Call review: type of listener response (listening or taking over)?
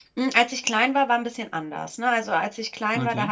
listening